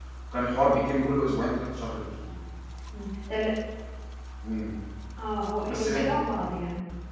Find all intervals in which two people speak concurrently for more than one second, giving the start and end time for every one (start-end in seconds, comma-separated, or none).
none